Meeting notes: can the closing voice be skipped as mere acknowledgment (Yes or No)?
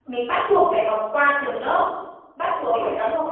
Yes